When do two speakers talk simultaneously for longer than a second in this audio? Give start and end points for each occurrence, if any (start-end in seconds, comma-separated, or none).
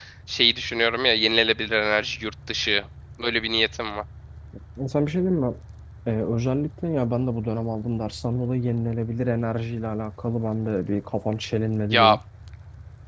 none